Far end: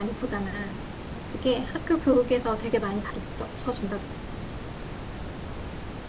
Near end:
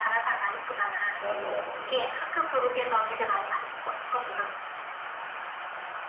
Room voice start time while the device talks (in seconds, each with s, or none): 1.2 s